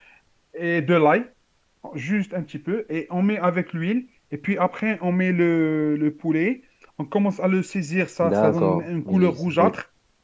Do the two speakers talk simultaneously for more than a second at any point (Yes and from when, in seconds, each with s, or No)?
Yes, from 8.2 s